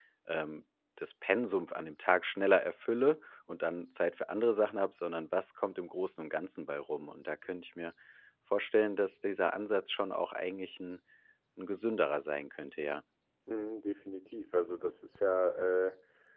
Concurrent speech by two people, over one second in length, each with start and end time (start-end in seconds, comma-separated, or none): none